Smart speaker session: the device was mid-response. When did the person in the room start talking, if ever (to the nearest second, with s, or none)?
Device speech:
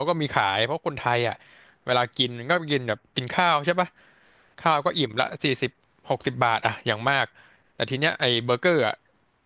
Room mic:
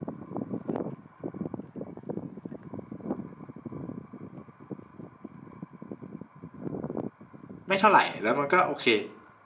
8 s